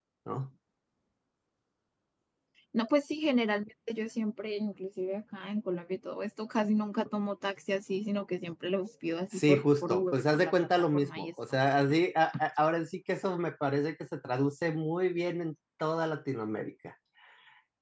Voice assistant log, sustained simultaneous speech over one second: present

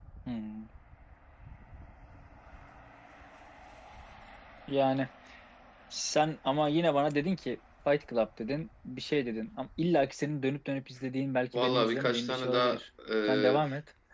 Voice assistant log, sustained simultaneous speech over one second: present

